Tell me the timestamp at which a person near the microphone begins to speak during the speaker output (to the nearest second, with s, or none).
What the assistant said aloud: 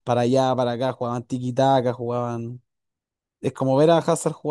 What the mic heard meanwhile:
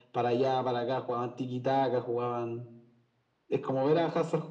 none